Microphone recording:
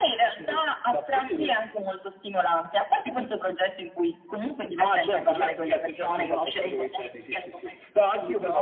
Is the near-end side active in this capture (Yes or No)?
No